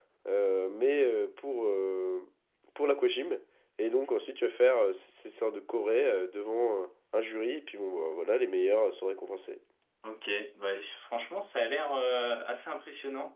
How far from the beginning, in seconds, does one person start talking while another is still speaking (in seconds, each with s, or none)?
none